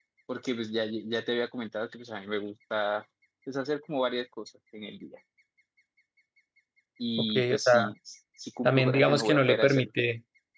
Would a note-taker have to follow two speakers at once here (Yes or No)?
Yes